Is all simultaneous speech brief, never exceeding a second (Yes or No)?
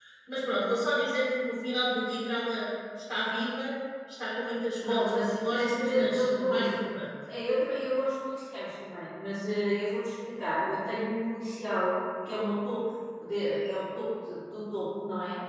No